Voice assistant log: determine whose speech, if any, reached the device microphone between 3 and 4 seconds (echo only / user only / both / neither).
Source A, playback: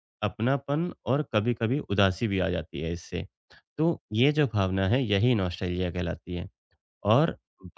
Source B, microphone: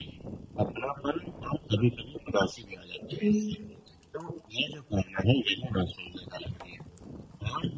both